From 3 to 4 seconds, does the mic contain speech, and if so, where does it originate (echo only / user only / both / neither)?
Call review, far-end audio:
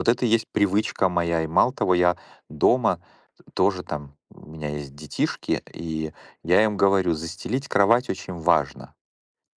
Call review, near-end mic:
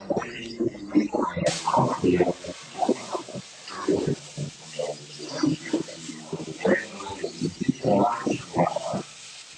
echo only